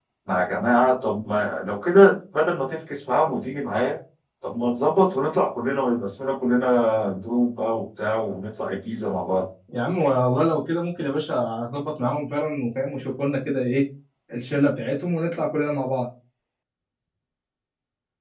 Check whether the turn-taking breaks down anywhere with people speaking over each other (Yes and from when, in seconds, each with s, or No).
No